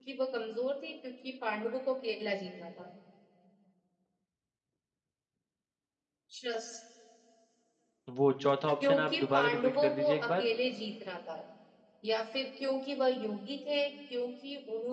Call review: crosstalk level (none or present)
present